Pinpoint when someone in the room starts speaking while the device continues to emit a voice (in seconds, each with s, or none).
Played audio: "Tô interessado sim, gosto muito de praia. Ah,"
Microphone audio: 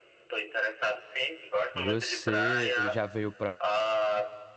1.7 s